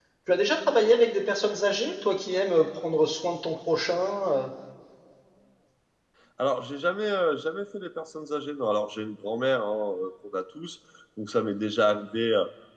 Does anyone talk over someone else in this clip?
No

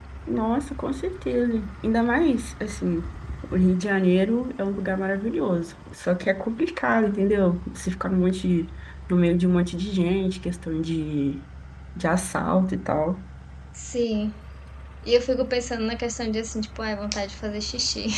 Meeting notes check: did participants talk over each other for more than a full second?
No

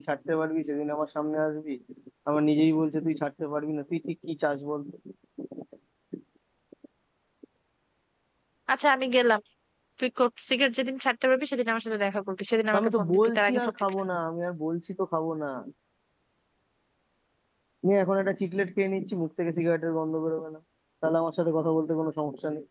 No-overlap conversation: No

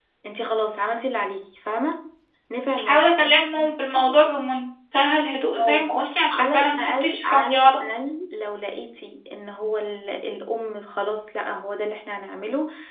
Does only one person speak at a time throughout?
No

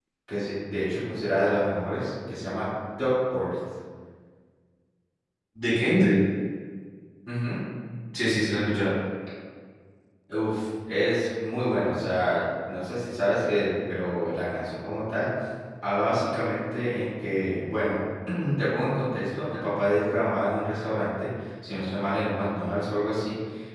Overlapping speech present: No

